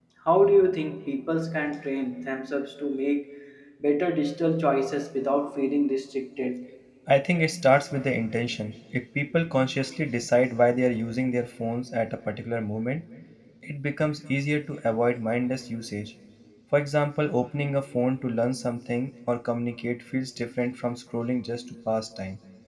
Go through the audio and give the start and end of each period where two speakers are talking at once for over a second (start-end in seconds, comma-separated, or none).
none